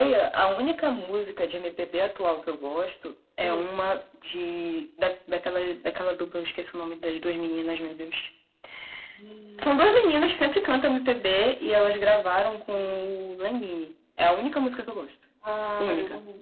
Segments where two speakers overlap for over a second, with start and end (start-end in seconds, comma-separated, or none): none